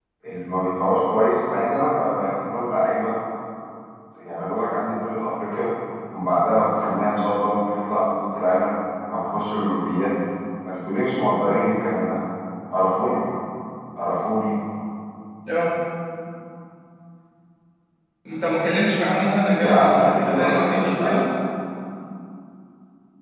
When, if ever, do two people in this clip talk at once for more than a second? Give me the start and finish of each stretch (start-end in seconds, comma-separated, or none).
19.6-21.2